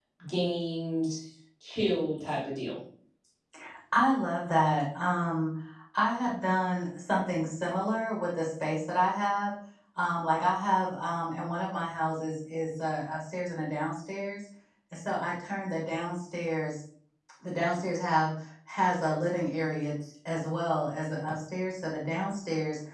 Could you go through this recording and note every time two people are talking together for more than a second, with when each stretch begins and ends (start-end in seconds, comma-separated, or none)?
none